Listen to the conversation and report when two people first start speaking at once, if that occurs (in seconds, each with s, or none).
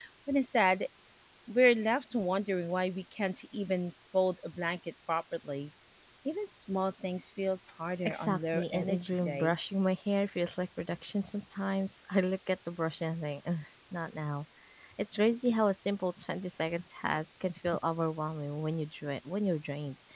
8.0 s